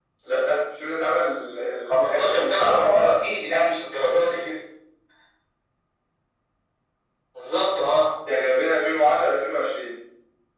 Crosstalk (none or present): present